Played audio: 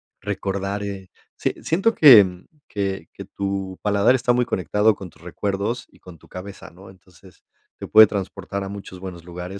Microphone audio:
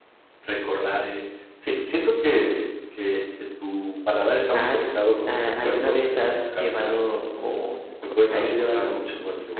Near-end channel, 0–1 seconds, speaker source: echo only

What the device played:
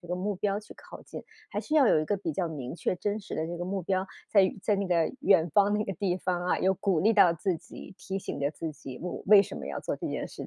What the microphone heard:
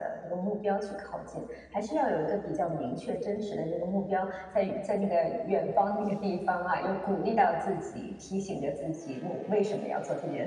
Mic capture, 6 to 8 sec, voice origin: echo only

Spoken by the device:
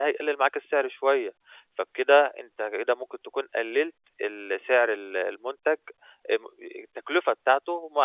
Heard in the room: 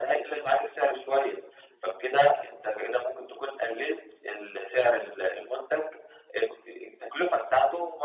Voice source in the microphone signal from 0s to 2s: echo only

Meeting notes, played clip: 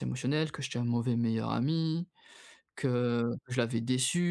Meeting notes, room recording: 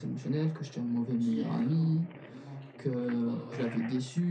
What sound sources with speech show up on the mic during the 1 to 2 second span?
both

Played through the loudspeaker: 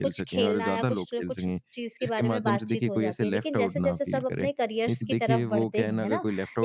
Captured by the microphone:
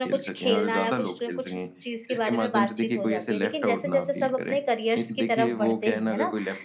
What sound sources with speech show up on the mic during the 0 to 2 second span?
echo only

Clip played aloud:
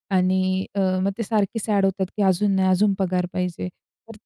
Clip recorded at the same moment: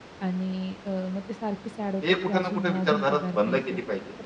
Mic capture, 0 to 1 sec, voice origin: echo only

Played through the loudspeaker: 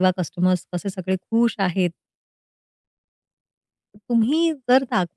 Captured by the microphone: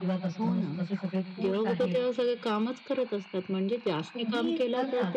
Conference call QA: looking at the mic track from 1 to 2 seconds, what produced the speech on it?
both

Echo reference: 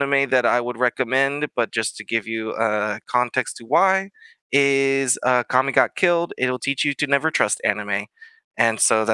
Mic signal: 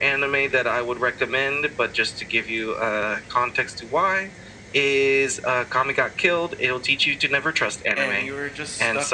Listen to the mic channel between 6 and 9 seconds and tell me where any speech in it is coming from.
both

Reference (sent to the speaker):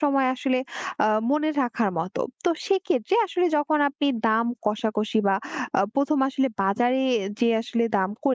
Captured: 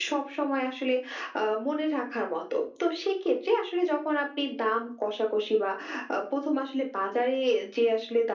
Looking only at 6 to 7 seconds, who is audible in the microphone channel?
echo only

